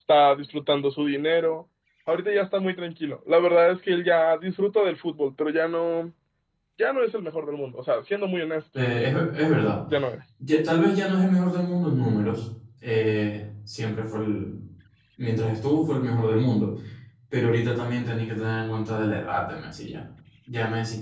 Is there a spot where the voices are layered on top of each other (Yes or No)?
No